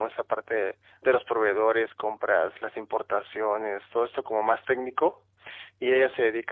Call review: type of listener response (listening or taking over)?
listening